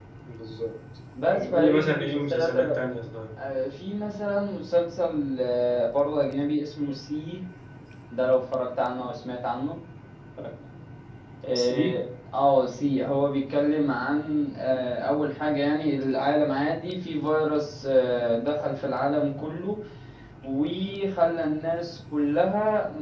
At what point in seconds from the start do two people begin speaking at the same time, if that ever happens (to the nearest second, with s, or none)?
1 s